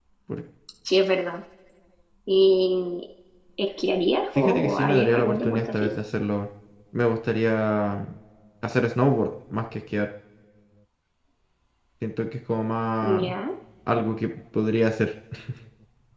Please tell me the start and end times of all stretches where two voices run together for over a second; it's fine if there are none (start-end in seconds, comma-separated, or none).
4.4-5.9